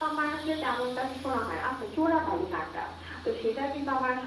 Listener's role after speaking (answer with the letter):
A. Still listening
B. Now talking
A